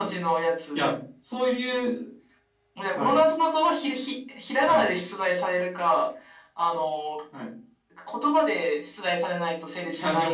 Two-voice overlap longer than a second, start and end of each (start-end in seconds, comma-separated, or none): none